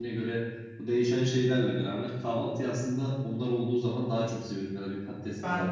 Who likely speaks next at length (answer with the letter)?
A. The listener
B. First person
B